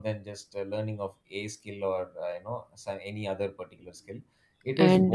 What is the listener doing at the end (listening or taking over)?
listening